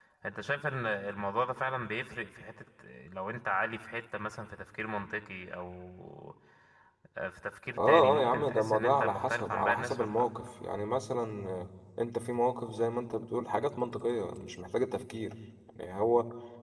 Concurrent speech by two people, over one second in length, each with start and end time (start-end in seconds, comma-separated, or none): 7.8-10.2